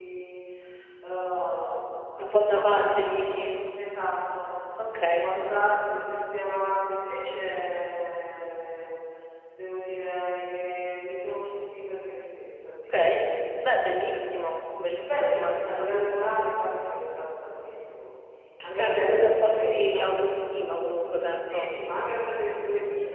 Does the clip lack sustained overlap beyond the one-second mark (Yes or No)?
No